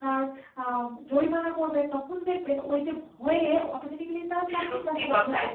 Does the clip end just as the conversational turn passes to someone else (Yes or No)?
Yes